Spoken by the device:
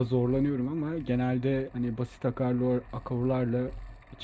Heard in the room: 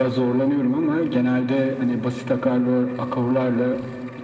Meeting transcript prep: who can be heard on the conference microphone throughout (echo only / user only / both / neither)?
echo only